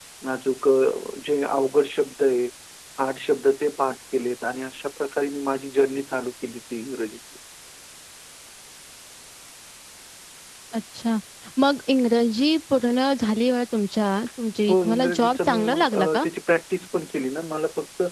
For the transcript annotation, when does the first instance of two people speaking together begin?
14.7 s

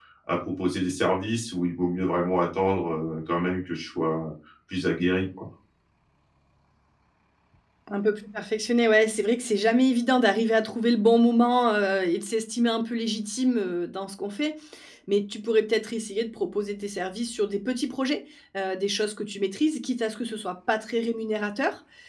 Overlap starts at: none

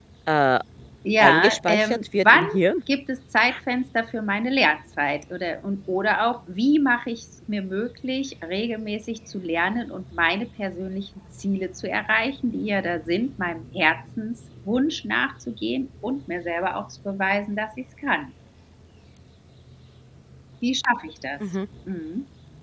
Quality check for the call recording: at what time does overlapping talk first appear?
1.2 s

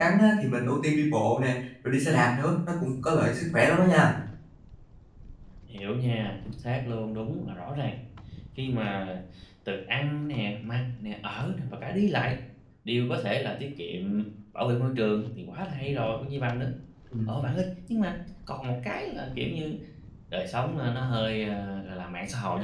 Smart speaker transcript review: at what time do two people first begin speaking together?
none

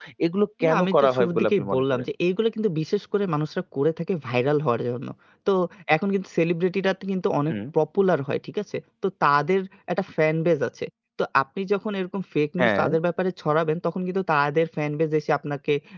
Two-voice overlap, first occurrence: 0.6 s

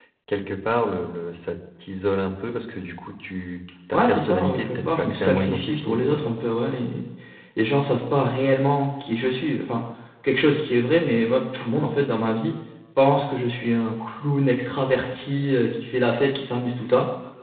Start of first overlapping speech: 3.9 s

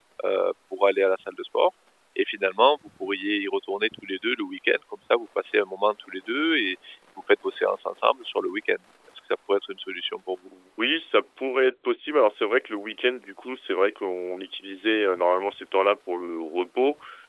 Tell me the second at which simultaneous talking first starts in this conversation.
none

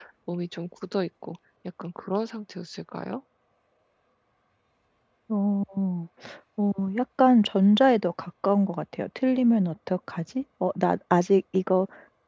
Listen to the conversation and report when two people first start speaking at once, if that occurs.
none

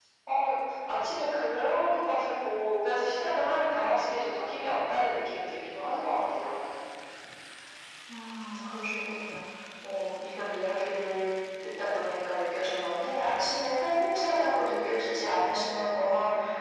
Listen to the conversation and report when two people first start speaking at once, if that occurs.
none

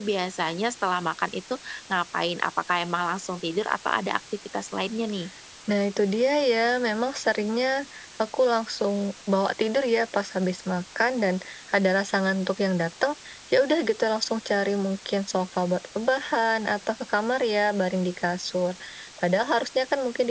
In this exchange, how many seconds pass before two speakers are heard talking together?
none

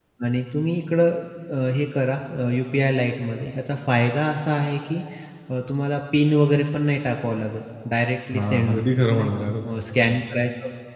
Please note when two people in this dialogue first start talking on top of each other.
8.3 s

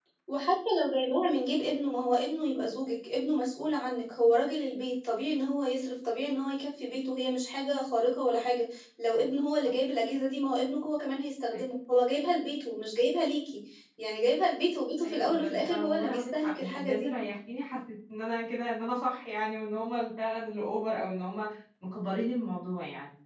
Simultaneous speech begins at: 15.0 s

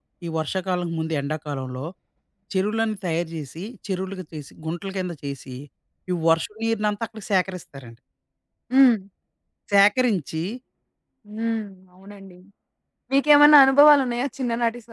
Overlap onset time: none

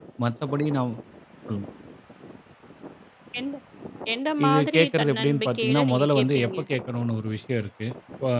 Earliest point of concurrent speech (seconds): 4.4 s

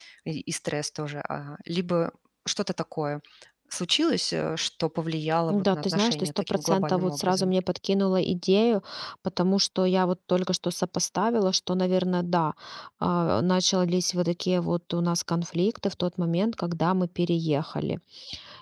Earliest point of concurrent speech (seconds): 5.5 s

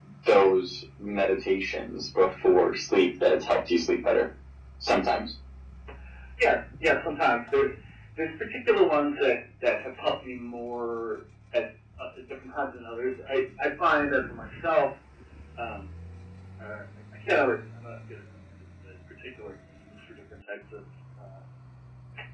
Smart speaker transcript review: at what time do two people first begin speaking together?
none

